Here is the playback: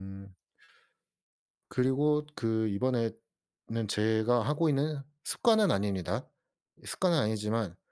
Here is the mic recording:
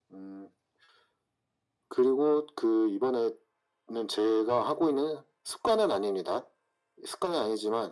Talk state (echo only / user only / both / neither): echo only